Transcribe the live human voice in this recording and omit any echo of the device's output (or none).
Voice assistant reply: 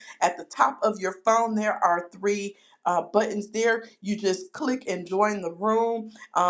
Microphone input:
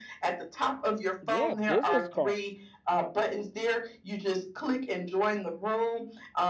yeah, business cards.